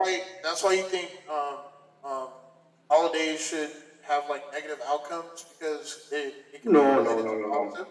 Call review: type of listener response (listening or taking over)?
taking over